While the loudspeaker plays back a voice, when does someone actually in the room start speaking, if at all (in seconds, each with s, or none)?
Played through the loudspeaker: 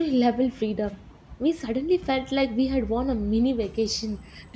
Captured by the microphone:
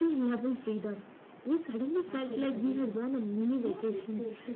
2.1 s